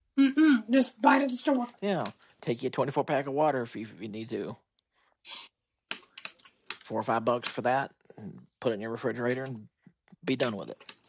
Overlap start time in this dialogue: none

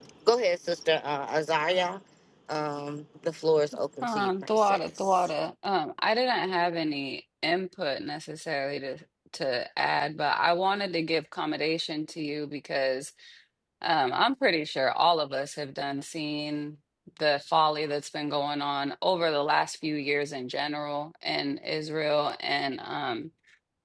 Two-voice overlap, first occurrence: 4.0 s

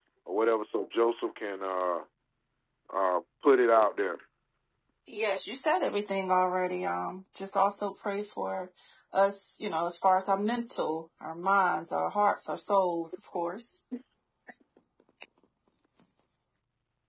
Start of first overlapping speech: none

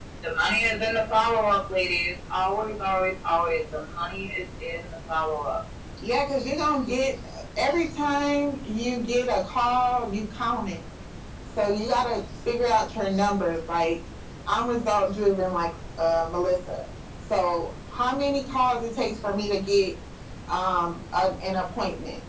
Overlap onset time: none

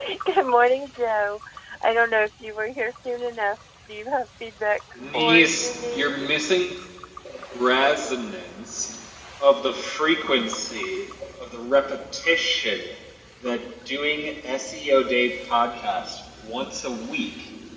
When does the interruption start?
5.0 s

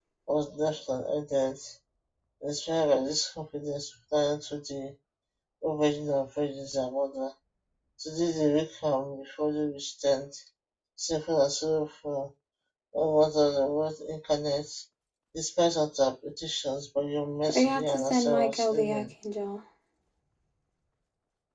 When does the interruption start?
17.5 s

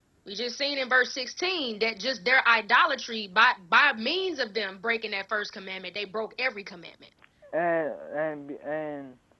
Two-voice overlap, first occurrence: none

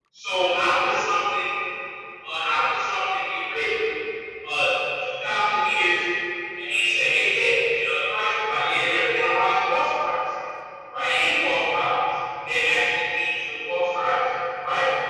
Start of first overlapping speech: none

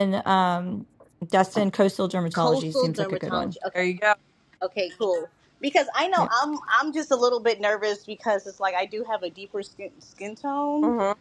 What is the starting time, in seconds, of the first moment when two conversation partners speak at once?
2.3 s

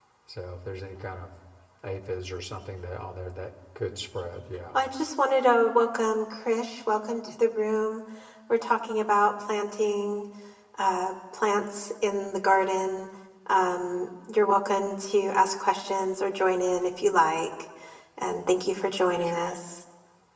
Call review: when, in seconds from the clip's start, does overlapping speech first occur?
none

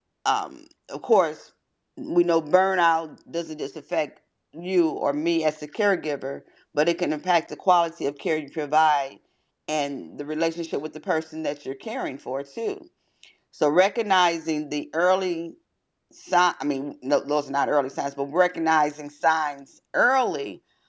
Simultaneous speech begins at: none

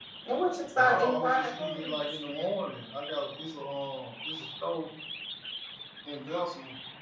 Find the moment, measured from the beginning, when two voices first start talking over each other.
0.8 s

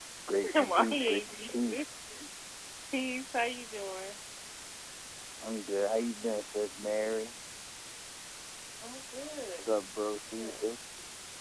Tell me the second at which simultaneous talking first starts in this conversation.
0.5 s

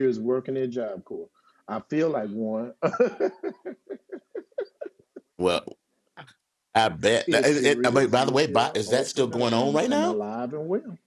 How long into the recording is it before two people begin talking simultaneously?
7.3 s

